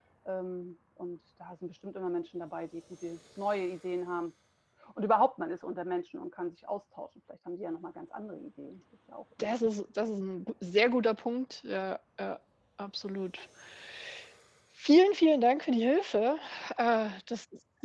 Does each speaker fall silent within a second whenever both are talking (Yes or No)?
Yes